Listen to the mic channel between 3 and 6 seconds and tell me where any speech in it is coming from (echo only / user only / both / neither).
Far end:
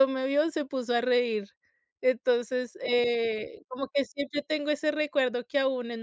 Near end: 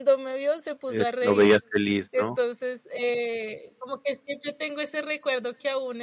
echo only